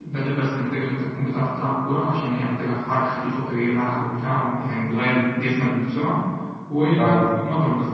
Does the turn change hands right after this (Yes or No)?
No